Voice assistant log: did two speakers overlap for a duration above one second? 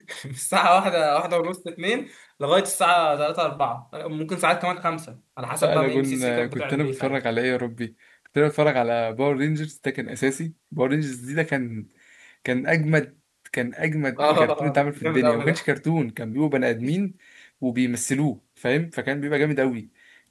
Yes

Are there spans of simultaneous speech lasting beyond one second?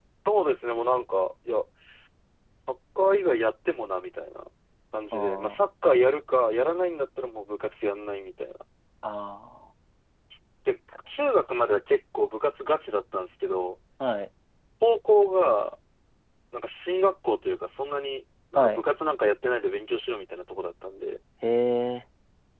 No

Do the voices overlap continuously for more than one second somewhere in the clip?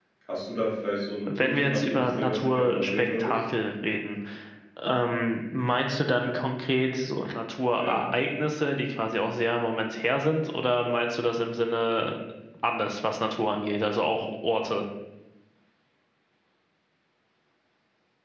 Yes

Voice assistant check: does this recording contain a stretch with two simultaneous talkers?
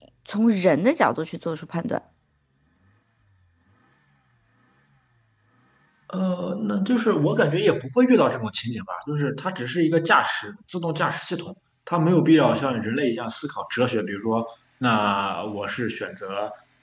No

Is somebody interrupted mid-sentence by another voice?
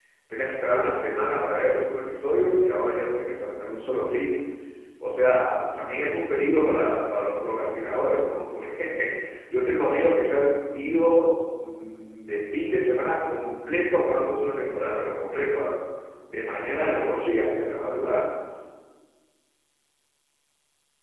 No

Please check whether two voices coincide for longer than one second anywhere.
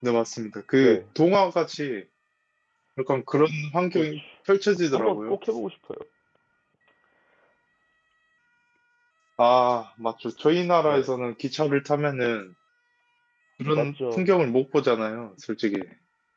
No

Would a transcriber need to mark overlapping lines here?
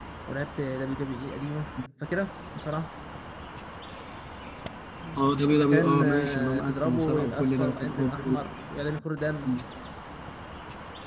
Yes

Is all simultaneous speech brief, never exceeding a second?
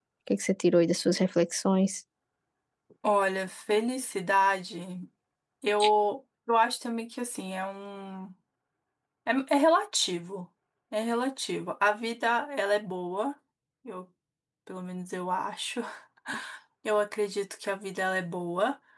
Yes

